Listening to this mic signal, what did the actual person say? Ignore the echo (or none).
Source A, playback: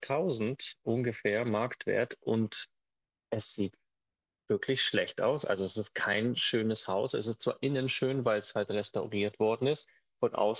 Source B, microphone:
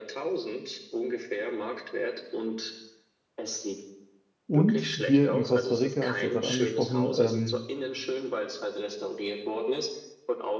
Und hier in Costa Rica, hast du ja gerade angesprochen, ähm,